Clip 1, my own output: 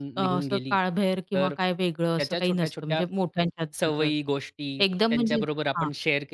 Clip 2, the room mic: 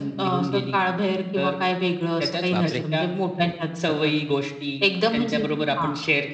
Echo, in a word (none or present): present